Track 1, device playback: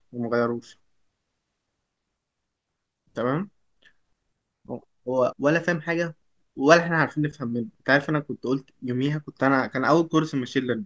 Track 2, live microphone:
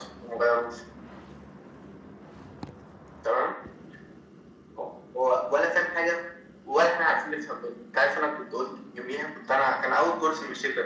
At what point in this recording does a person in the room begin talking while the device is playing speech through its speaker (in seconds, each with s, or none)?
none